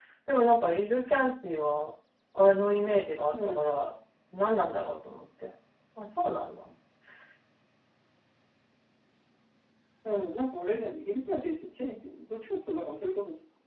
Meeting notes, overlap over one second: none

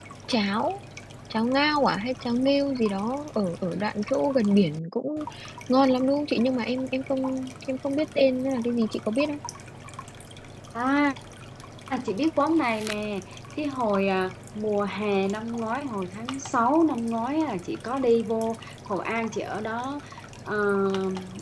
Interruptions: none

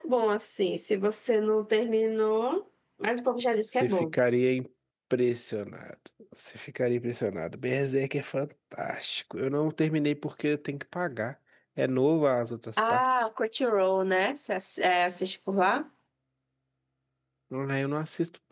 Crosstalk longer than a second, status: none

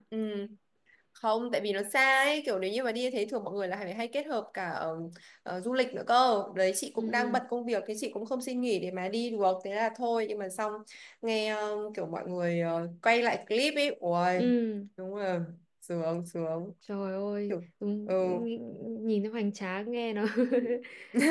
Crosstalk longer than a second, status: none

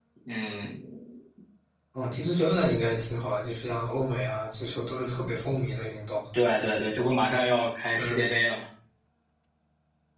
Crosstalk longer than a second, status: none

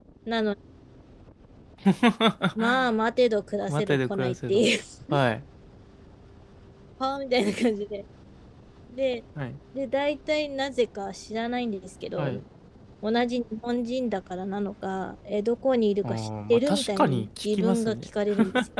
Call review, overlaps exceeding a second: present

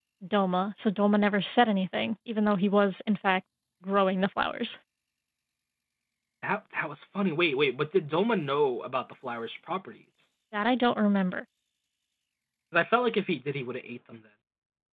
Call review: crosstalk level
none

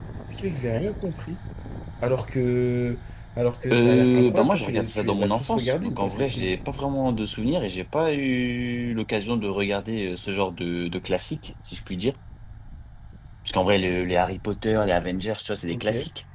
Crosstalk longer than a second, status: present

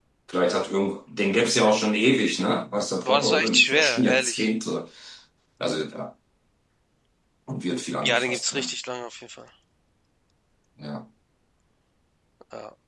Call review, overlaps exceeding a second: present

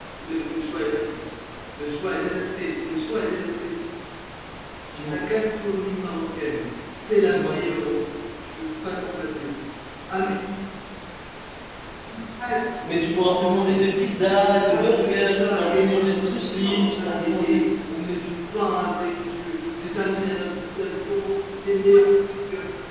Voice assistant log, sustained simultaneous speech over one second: present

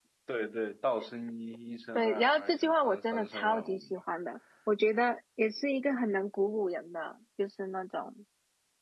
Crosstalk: present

